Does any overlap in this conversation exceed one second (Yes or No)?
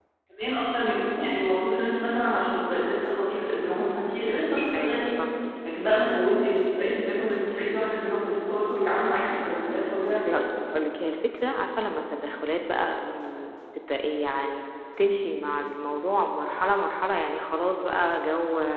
No